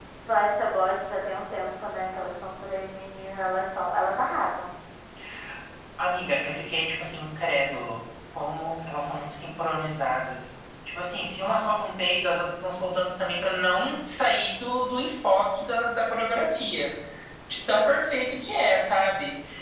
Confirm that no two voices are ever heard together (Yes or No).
Yes